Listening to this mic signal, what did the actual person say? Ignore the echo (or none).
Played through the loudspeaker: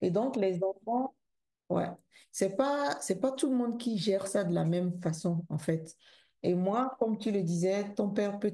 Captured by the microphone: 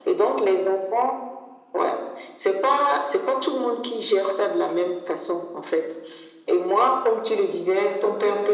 none